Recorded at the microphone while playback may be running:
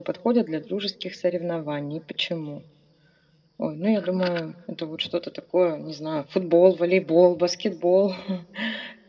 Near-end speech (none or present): none